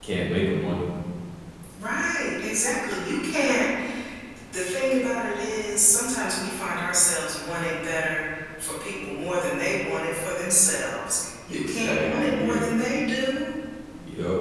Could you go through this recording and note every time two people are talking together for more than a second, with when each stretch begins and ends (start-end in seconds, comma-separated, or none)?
11.5-12.7